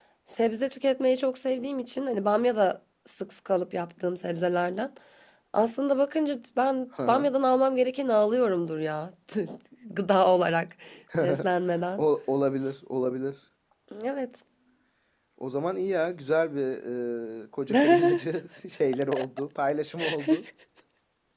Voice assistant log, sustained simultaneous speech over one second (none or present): none